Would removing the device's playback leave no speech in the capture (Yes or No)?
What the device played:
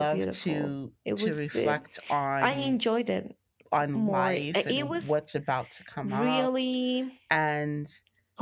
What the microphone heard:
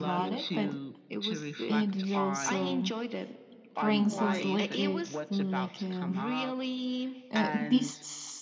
No